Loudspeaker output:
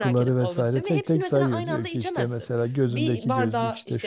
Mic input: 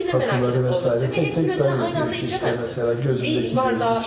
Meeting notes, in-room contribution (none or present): none